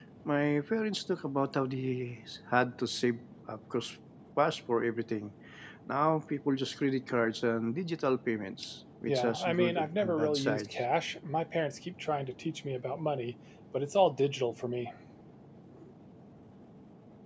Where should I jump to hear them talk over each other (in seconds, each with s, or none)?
9.1 s